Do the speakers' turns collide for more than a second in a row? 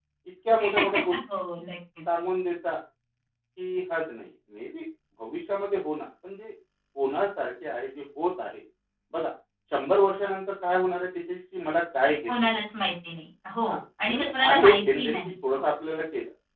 Yes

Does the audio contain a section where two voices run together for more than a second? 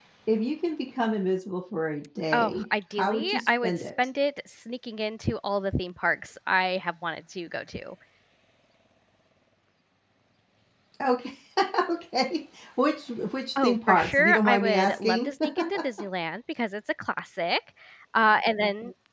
Yes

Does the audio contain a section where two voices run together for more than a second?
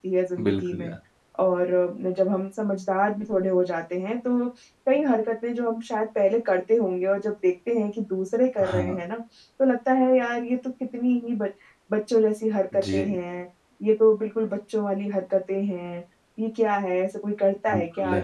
No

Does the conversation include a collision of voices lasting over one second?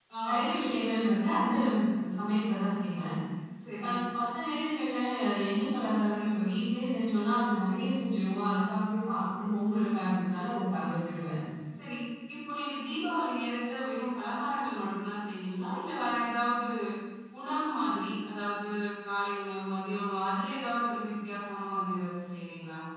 No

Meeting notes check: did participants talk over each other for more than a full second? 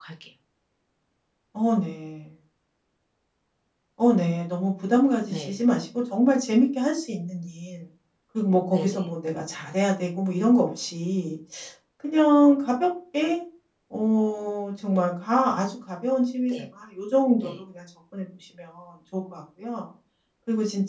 No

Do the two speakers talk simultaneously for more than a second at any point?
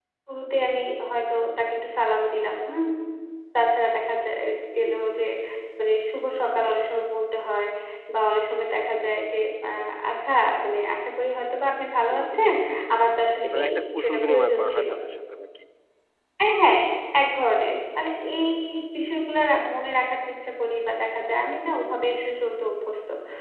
Yes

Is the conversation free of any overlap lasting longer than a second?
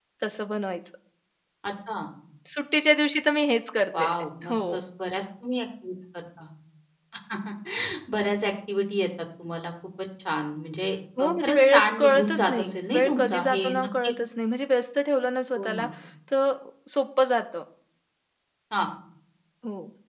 No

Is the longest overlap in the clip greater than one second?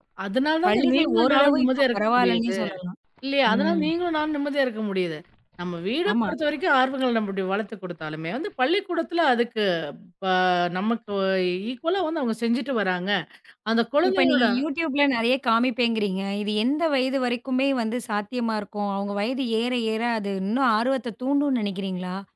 Yes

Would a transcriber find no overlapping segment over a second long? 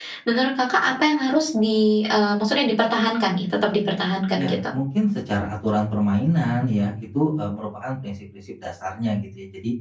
Yes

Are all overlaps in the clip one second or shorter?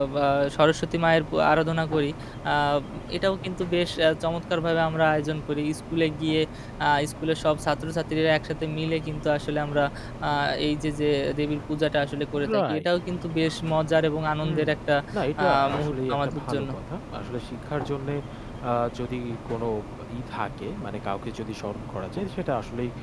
No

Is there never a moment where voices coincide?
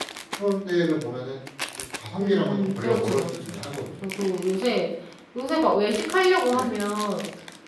No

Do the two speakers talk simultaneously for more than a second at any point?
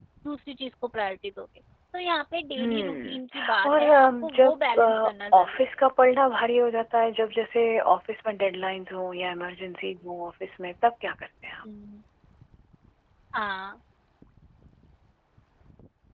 Yes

